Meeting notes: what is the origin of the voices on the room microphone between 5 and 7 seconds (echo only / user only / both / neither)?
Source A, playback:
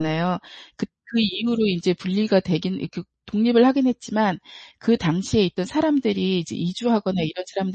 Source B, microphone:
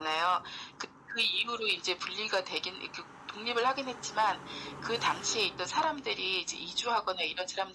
echo only